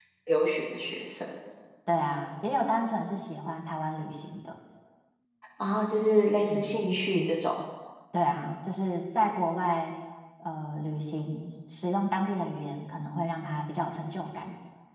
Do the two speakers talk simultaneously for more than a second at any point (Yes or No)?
No